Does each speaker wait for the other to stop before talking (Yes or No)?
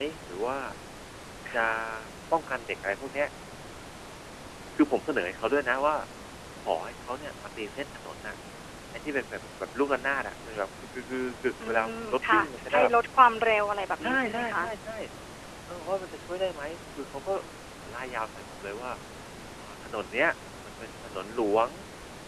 No